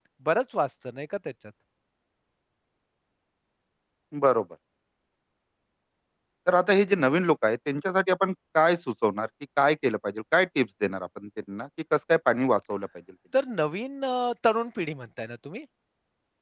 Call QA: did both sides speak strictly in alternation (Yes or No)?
Yes